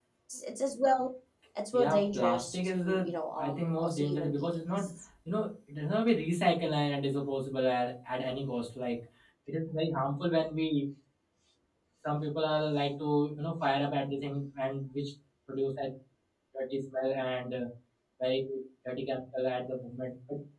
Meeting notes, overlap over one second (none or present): present